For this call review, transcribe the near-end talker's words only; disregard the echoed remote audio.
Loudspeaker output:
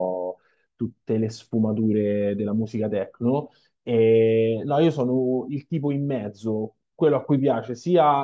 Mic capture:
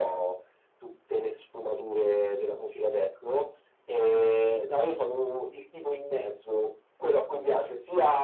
none

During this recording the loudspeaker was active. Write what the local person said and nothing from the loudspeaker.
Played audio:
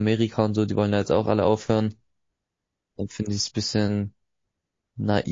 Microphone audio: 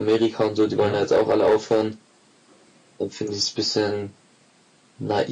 okay.

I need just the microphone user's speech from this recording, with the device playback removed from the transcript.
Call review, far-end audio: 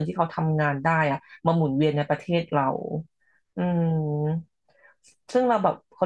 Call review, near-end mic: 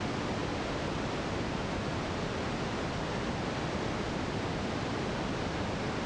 none

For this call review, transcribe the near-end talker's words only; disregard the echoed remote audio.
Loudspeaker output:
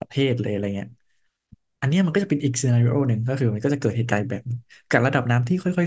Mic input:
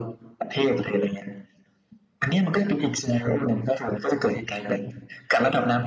none

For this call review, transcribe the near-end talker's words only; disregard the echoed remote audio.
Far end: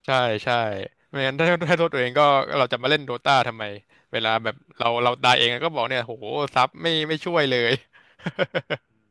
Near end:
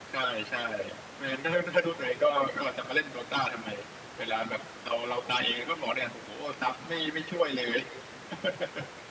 none

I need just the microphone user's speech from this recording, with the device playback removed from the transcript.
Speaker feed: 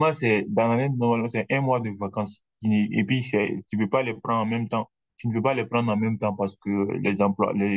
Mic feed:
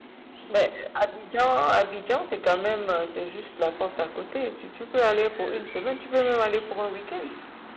Mais Abidjan, Abidjan, c'est quand même, euh, c'est juste la porte à côté. Si tu peux aller pour une semaine, tu peux même aller pour un week-end.

